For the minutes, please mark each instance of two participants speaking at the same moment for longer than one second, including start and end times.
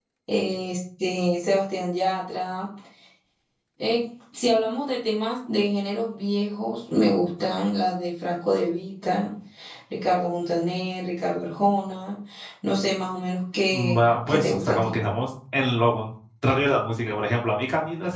13.7-15.0

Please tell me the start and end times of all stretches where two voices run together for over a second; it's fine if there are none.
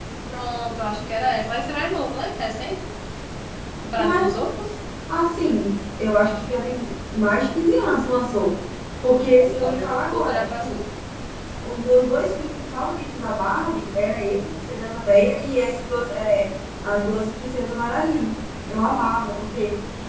9.4-10.8

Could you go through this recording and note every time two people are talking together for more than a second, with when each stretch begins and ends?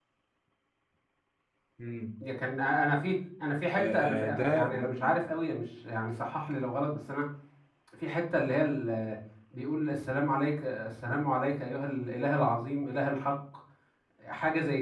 3.8-5.2

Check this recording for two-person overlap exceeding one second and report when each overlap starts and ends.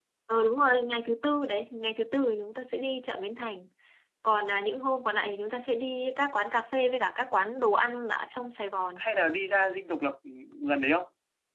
none

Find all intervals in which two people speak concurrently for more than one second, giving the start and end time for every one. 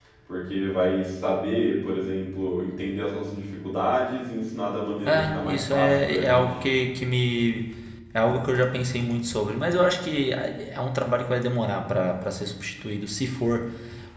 5.0-6.5

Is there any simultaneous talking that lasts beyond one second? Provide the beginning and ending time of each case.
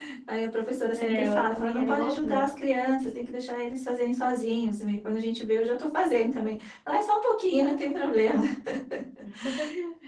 1.0-2.5

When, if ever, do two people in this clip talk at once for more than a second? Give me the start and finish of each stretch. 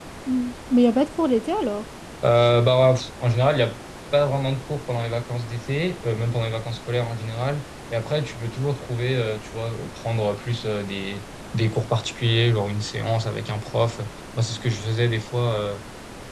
none

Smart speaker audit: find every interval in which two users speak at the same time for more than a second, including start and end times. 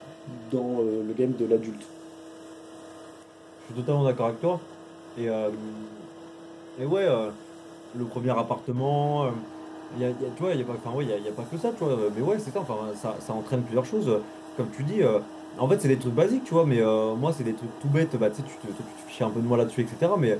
none

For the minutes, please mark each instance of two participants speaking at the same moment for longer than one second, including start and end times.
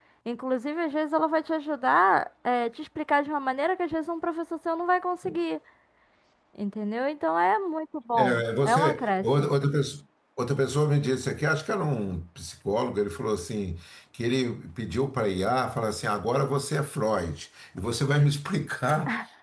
8.2-9.5

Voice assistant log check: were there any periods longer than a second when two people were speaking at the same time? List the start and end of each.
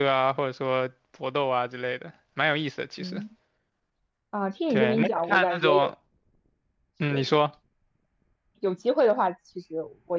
4.7-5.9

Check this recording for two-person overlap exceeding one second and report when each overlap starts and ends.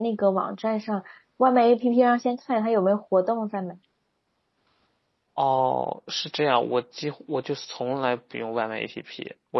none

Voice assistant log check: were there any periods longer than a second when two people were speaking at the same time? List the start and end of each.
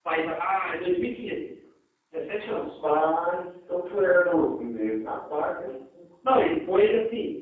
none

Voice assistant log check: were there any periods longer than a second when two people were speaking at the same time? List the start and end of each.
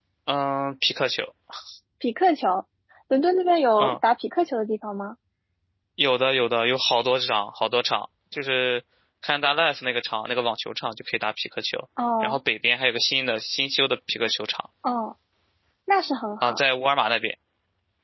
none

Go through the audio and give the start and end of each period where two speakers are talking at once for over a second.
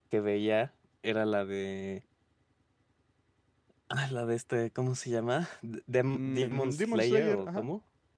6.1-7.7

